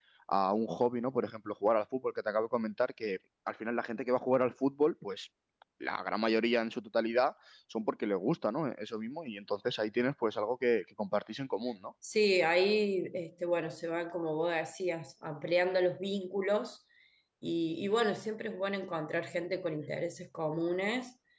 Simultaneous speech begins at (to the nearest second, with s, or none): none